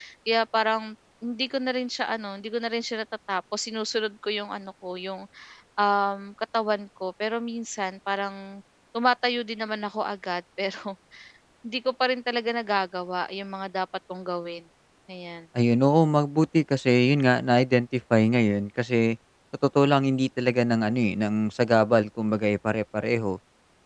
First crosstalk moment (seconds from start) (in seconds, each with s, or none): none